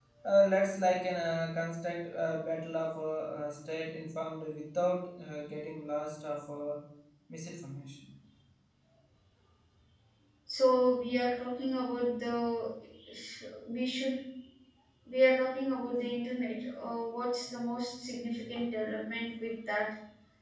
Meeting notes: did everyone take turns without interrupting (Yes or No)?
Yes